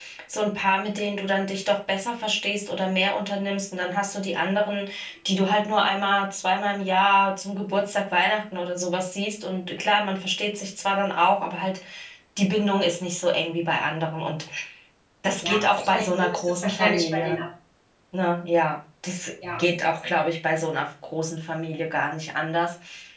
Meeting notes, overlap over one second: present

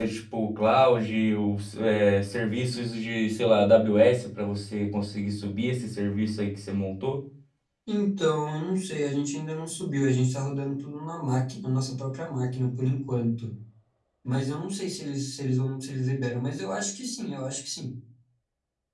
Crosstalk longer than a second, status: none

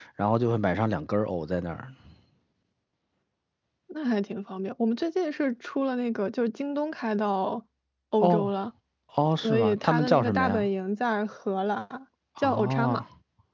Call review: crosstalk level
present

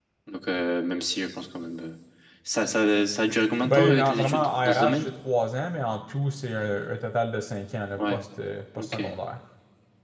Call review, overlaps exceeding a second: present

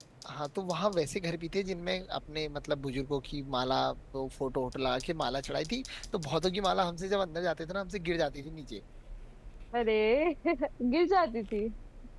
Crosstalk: none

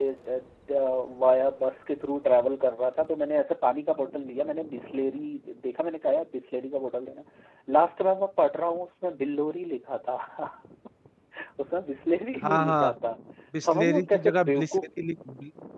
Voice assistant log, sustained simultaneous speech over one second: present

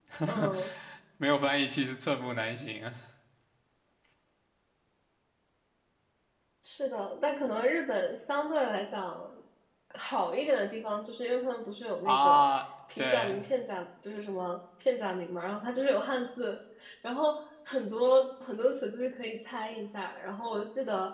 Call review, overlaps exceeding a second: none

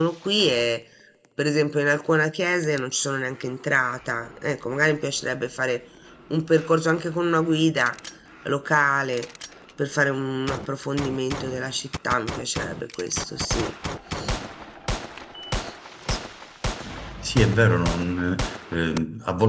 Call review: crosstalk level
none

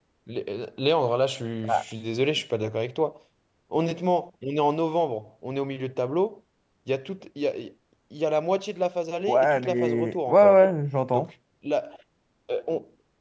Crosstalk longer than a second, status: present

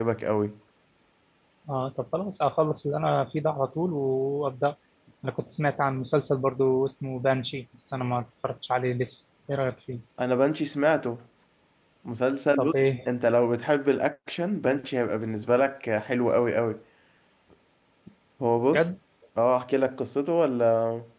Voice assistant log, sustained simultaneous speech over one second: none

